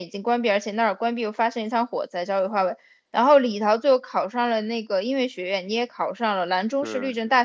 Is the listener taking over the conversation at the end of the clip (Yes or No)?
No